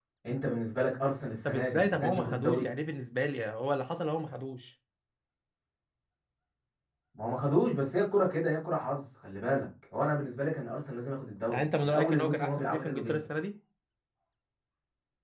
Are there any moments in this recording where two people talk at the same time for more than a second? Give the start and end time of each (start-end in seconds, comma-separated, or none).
1.4-2.7, 11.5-13.2